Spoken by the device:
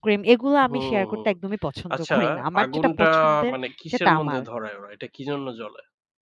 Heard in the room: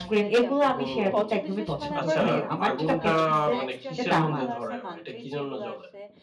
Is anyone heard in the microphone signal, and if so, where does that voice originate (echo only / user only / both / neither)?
both